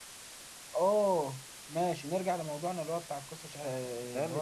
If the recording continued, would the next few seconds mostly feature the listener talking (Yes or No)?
Yes